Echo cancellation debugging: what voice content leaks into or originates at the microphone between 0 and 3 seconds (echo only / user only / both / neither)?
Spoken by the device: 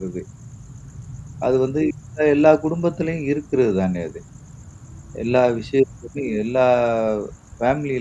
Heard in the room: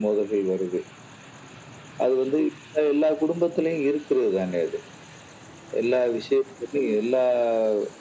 echo only